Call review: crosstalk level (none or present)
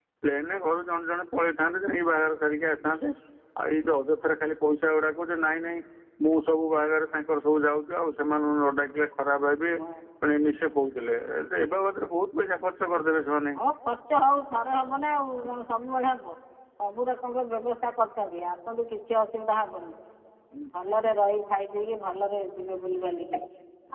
none